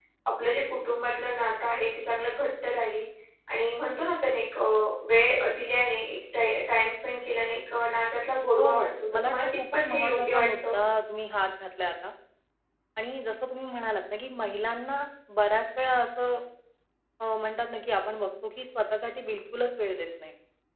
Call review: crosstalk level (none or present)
present